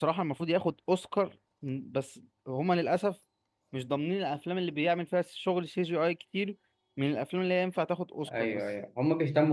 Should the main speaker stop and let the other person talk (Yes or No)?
Yes